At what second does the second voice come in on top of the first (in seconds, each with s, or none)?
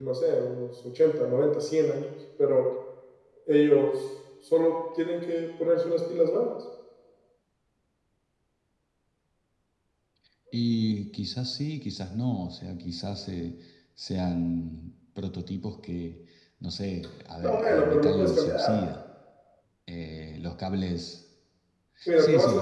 17.4 s